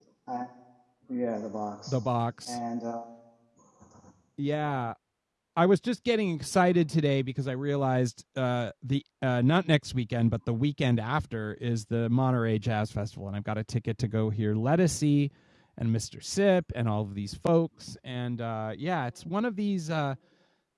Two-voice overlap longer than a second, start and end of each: none

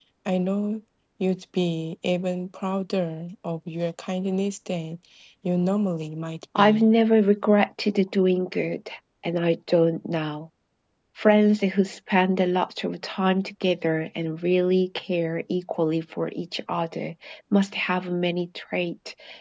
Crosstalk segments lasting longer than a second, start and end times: none

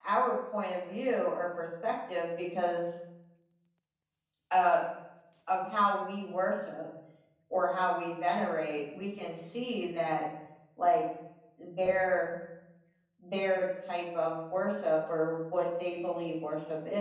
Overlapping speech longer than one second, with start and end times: none

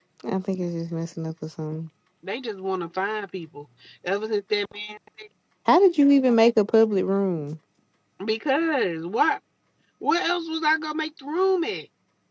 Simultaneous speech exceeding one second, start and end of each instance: none

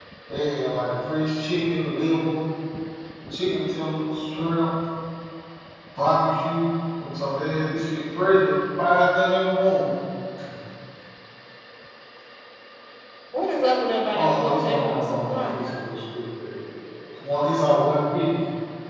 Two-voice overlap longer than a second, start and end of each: 14.2-15.7

